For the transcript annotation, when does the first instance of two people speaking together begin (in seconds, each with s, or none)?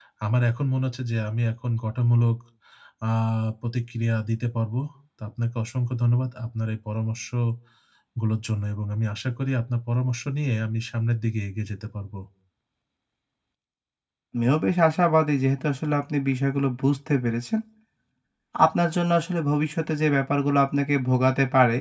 none